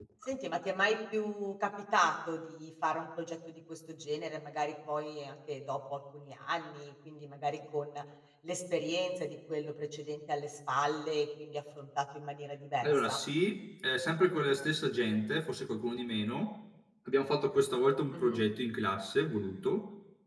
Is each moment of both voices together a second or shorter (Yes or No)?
Yes